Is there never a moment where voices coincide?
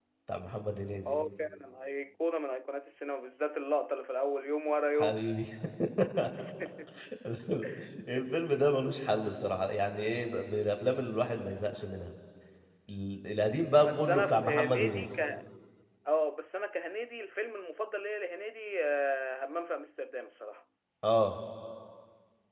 No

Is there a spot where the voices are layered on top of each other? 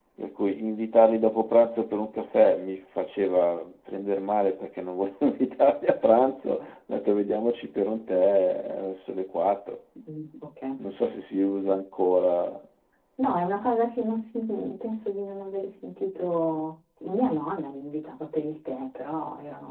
No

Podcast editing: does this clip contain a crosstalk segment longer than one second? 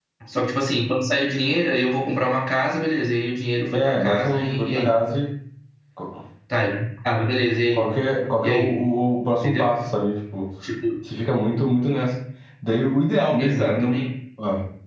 Yes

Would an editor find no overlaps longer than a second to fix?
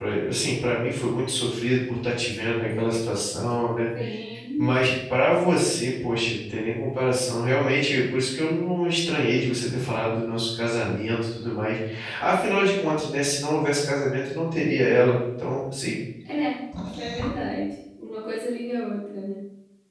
Yes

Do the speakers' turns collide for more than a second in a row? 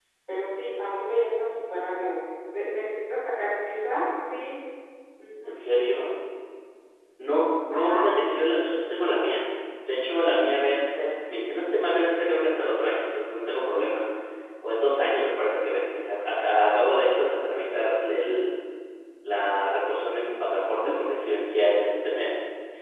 No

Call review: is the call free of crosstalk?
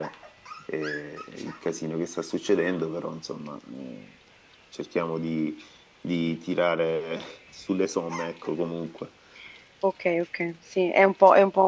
Yes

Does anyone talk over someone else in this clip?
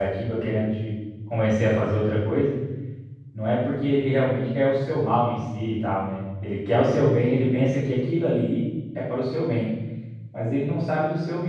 No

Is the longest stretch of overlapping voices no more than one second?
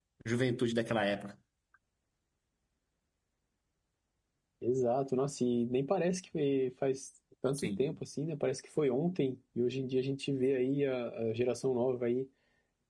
Yes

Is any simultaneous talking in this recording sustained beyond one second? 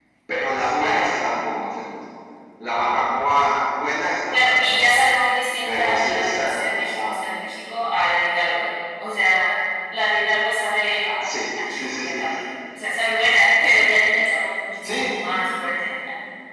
Yes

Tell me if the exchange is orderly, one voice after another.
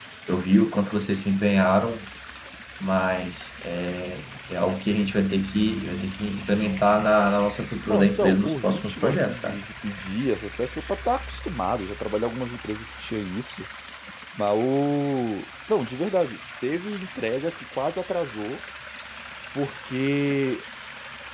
No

